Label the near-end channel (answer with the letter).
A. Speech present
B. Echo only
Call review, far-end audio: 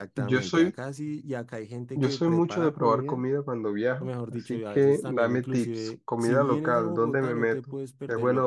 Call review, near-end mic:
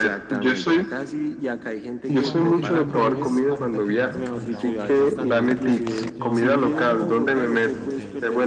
A